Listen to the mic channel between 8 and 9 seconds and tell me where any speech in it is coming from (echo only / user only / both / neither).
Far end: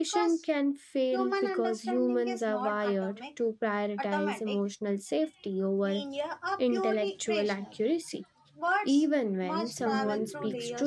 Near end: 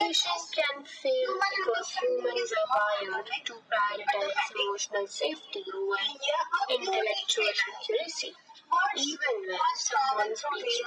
echo only